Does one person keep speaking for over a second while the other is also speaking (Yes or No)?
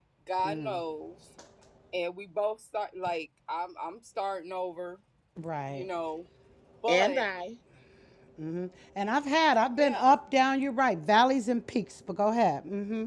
No